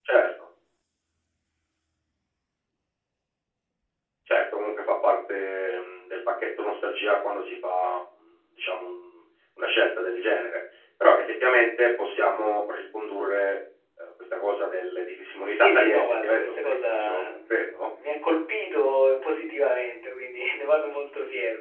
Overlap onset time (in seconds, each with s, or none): 15.5 s